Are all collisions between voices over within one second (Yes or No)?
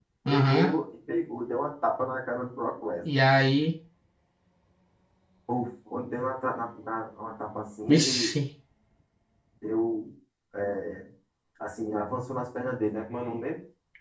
Yes